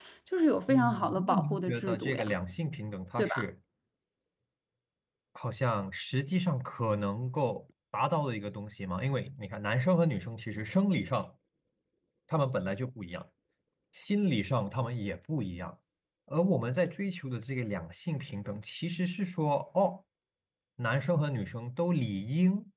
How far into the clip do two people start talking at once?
0.7 s

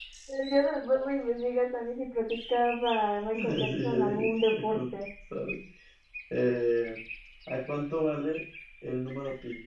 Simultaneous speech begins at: 3.3 s

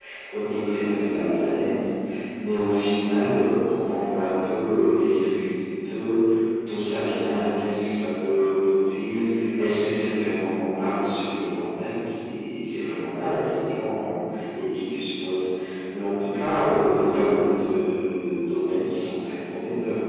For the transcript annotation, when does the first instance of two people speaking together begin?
none

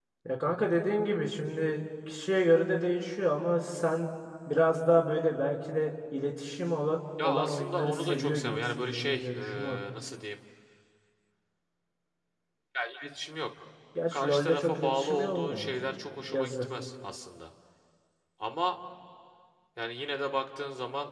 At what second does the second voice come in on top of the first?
7.2 s

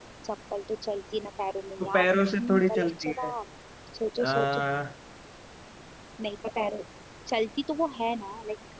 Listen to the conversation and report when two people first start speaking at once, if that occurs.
1.8 s

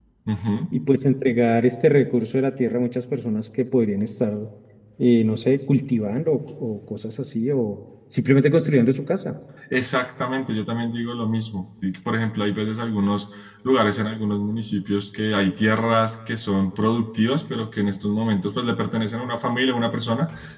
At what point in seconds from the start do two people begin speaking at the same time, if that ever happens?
none

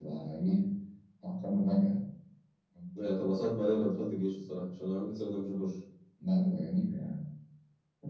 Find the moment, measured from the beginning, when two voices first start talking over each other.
none

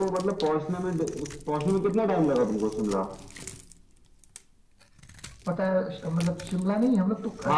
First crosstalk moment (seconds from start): none

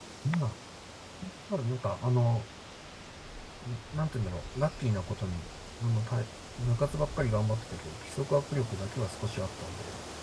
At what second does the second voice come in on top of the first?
none

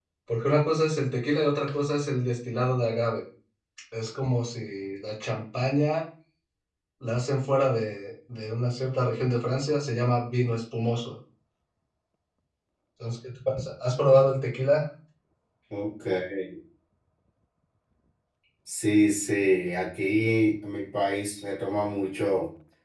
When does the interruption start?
none

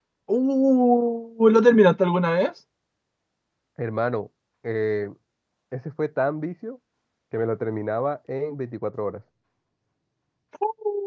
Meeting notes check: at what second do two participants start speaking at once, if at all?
none

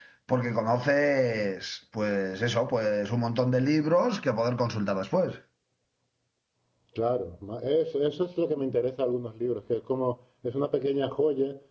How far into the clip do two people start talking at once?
none

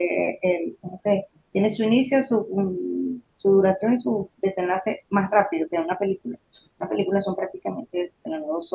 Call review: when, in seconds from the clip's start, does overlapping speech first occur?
none

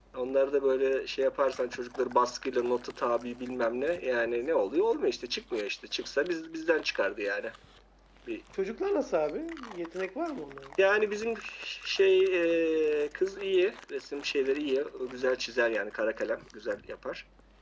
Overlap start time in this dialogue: none

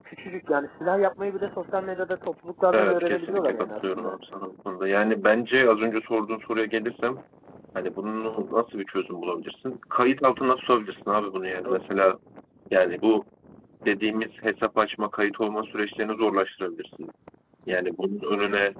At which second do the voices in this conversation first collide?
2.7 s

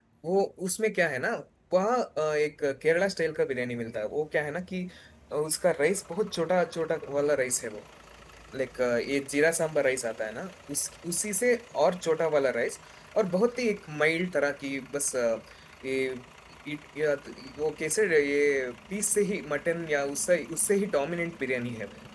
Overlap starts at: none

